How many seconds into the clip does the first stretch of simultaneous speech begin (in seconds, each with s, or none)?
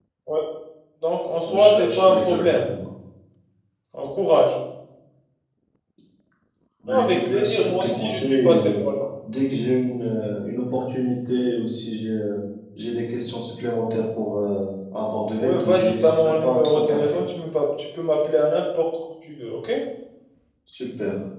1.5 s